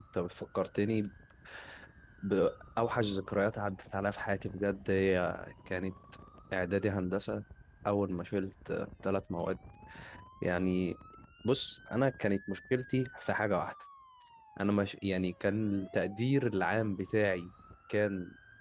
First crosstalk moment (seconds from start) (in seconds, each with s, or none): none